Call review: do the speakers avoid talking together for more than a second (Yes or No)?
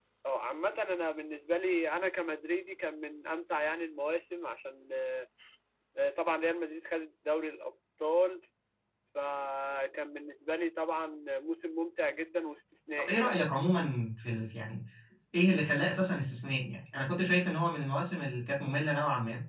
Yes